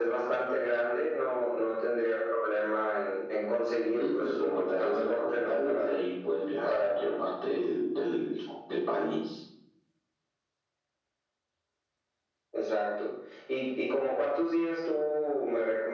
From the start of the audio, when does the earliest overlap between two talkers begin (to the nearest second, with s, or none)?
4 s